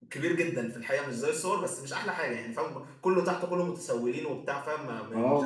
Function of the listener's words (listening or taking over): taking over